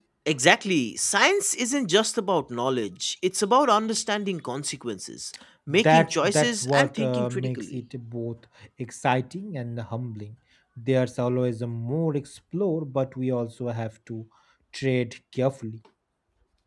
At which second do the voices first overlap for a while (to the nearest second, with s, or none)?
6 s